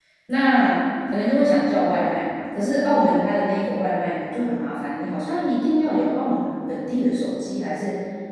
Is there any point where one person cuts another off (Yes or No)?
No